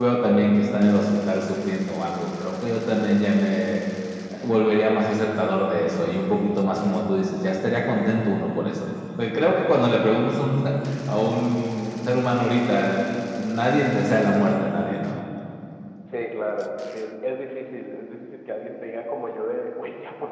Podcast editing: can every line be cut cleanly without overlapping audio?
Yes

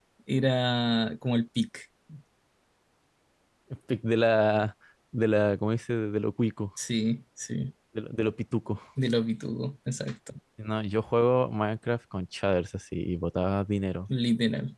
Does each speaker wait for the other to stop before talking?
Yes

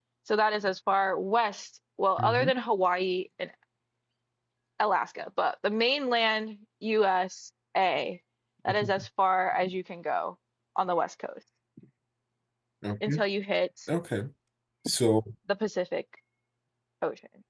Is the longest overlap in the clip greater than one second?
No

